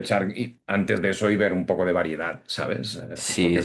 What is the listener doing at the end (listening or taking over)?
taking over